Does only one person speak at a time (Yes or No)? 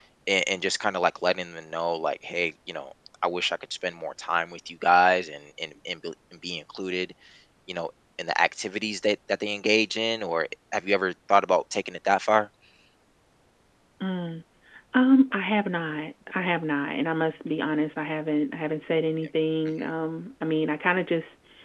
Yes